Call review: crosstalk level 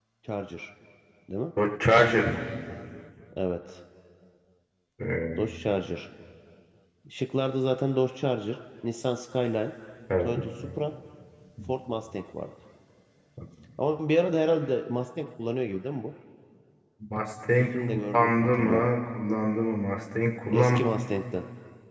present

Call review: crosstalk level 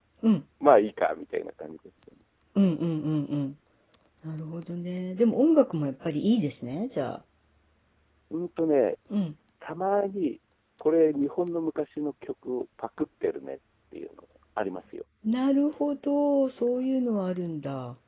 none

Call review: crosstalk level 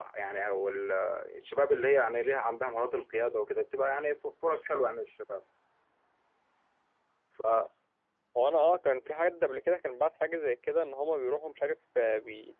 none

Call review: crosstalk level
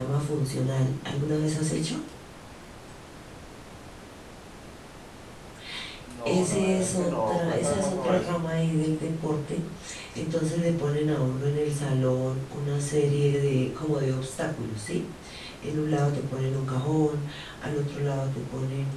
present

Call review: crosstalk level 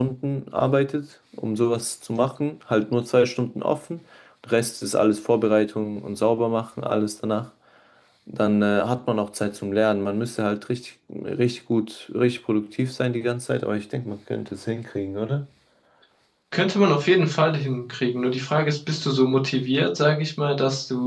none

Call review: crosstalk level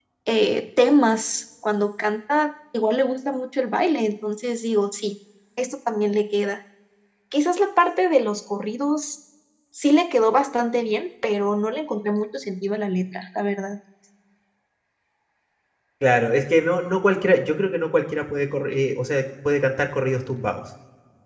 none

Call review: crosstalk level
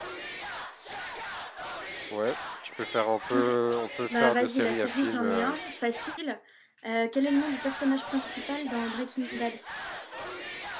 present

